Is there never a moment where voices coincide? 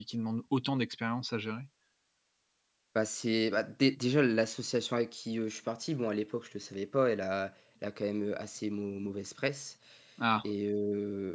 Yes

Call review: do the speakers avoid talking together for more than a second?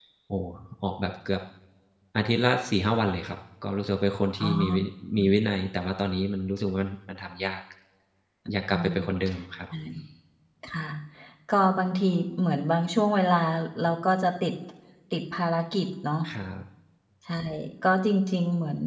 Yes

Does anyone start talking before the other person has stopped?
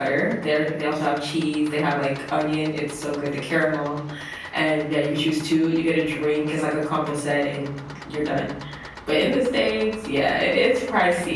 No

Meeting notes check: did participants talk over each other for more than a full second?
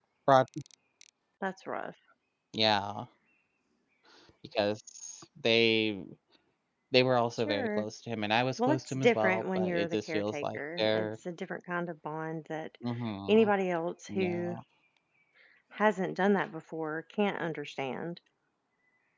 Yes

